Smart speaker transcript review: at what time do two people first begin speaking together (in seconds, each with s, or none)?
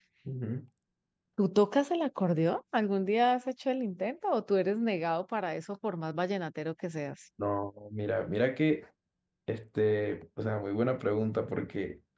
none